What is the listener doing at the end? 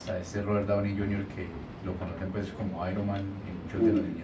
listening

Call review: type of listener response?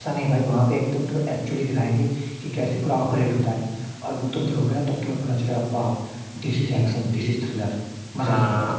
taking over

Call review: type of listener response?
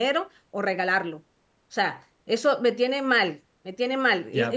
taking over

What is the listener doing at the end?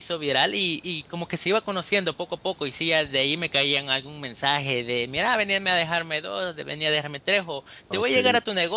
listening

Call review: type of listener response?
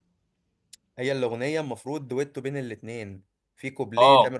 listening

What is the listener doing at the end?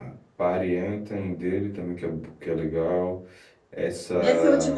taking over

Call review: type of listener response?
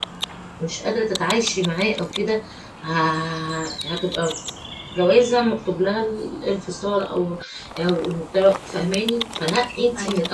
listening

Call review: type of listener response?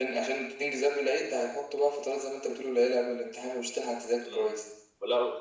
taking over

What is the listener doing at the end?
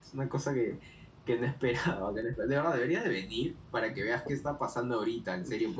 taking over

